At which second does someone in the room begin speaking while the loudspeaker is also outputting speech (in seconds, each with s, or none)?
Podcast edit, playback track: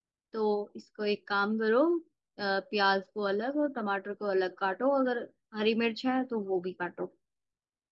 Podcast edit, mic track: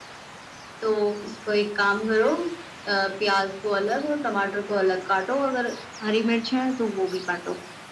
none